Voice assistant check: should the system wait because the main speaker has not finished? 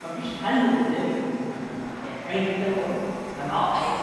Yes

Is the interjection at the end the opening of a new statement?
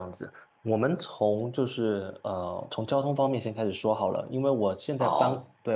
No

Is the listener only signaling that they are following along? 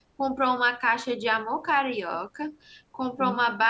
Yes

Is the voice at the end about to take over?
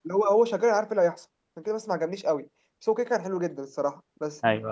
No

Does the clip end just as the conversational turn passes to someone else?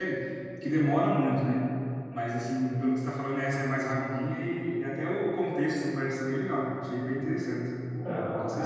Yes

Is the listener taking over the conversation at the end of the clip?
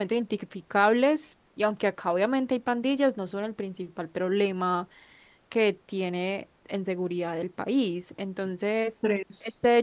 No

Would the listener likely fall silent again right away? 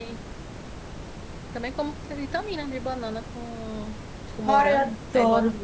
No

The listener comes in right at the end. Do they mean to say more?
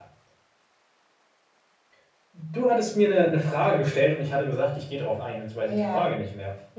Yes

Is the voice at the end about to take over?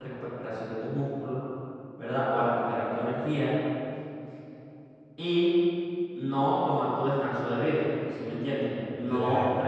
No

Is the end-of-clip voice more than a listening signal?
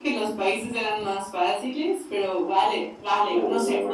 Yes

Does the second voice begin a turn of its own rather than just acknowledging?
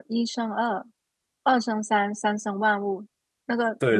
Yes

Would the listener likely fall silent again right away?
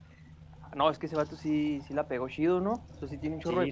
Yes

